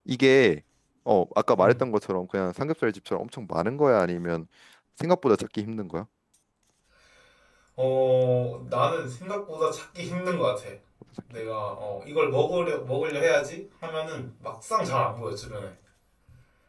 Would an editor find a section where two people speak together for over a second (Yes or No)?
No